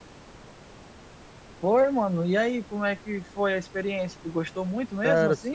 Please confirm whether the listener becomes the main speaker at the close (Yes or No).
Yes